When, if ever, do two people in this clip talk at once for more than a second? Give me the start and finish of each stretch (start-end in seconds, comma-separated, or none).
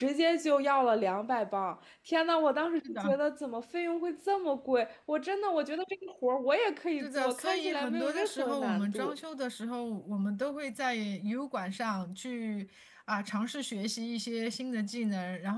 7.0-9.1